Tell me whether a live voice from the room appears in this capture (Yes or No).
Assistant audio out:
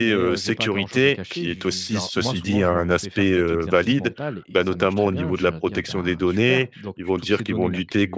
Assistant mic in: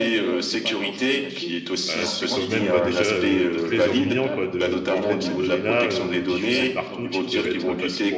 Yes